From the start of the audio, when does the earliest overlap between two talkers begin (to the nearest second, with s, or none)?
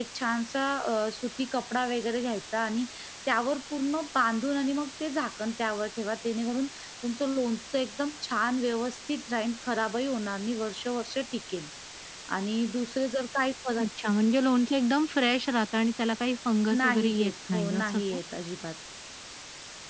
17 s